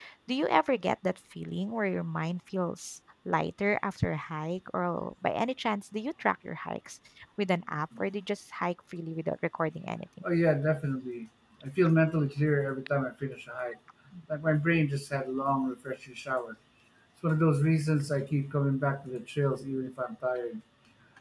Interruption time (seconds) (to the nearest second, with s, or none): none